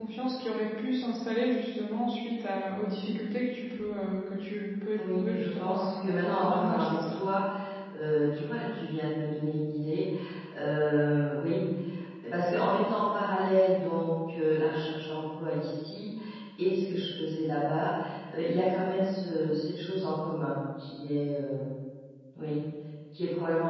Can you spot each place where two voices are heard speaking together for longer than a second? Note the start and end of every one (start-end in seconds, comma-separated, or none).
5.0-7.2